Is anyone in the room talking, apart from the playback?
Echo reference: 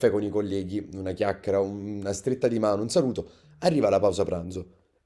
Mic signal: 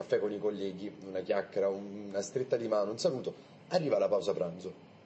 No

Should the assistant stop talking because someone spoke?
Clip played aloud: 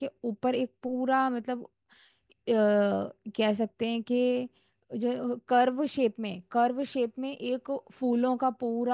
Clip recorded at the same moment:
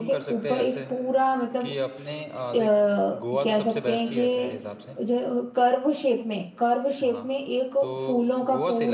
Yes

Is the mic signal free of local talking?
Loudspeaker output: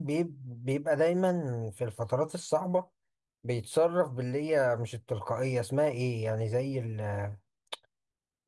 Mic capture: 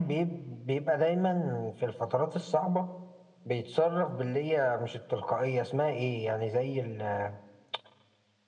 Yes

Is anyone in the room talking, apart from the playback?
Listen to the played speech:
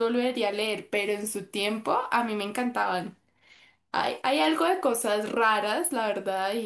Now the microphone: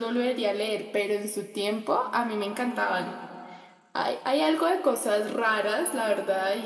No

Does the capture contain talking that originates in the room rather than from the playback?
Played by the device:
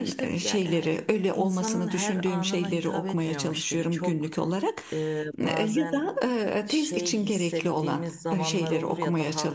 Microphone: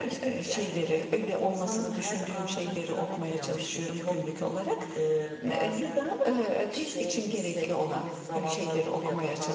No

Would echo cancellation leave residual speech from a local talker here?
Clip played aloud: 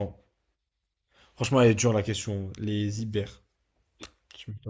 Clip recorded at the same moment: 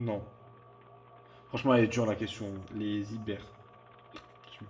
No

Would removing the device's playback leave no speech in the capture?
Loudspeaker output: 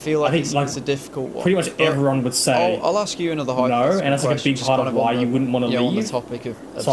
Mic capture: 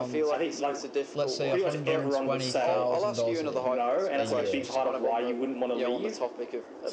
No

